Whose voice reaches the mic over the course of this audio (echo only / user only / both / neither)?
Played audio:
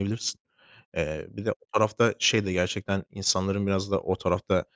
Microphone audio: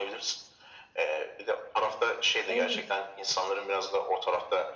both